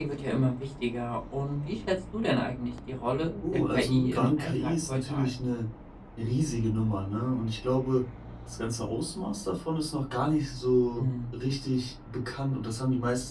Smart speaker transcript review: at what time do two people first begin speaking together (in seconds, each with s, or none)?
3.5 s